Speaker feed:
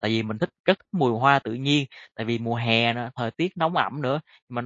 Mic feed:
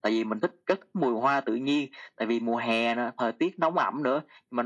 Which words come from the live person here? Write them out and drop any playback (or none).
none